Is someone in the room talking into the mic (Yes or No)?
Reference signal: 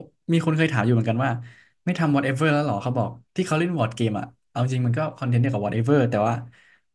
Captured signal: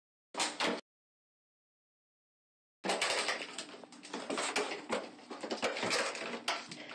No